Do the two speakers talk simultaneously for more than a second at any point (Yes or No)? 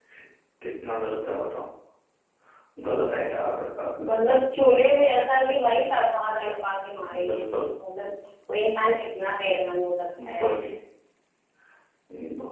No